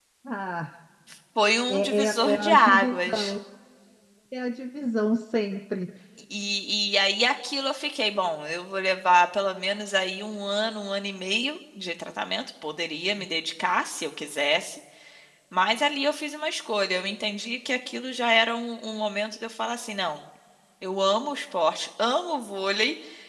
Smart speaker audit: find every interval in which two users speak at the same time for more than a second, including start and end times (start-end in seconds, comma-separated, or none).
1.7-3.3